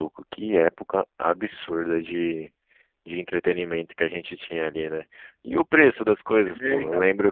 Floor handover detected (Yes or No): No